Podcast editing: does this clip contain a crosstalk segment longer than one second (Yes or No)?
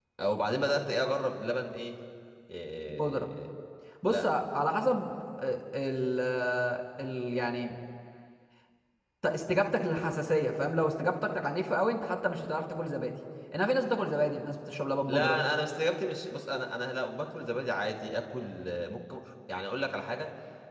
No